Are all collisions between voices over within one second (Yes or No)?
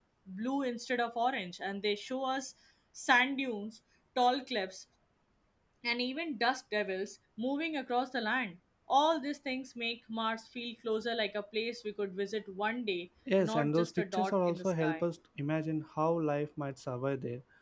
No